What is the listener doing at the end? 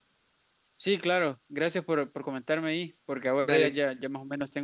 listening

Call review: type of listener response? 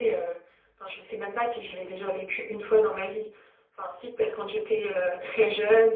listening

